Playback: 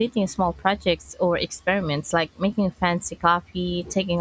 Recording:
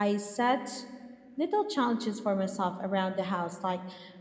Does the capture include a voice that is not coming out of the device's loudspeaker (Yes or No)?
Yes